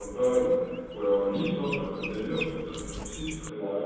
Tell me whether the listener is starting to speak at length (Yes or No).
Yes